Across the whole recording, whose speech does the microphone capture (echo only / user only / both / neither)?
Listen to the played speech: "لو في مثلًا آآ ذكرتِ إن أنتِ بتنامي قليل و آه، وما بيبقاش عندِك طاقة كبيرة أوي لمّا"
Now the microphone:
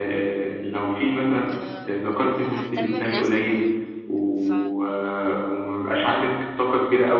both